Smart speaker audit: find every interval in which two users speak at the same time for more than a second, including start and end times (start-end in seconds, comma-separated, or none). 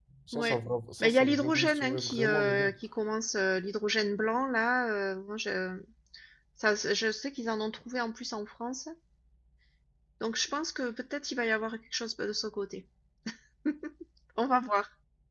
1.0-2.7